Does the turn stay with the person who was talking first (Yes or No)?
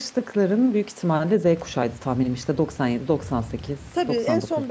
No